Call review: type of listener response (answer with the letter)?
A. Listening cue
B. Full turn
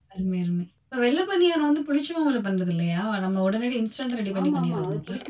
B